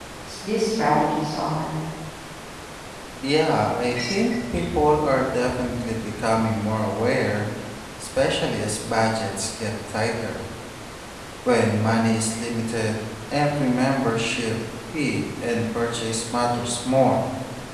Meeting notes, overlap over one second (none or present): none